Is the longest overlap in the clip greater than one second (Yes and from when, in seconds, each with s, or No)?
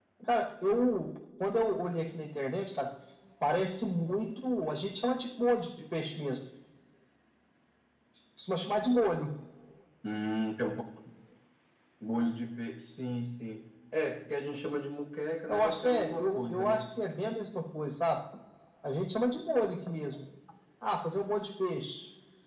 Yes, from 15.5 s